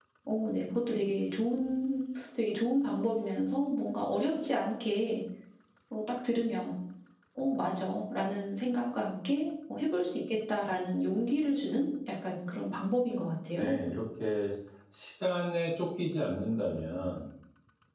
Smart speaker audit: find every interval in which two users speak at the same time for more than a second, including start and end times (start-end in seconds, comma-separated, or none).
none